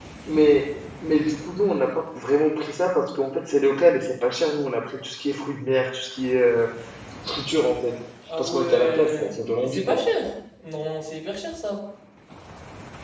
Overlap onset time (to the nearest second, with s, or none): 8 s